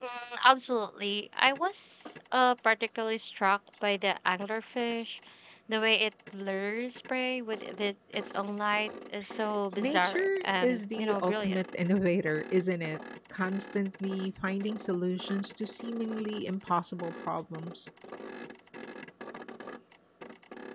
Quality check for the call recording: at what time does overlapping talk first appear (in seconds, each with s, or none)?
9.8 s